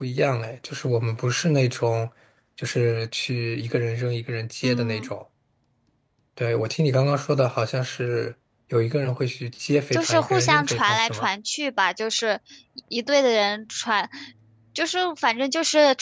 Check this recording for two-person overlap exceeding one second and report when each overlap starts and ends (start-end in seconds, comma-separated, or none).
9.9-11.3